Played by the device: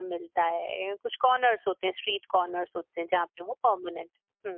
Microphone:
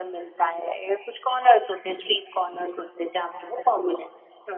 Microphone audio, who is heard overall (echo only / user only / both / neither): echo only